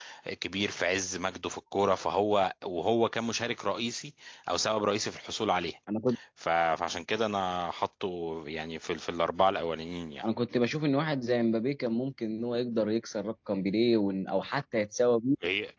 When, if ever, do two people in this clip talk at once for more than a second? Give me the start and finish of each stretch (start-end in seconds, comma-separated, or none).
none